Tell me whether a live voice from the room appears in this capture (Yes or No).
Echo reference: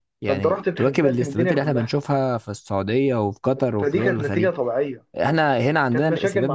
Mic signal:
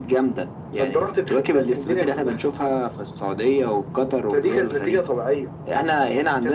No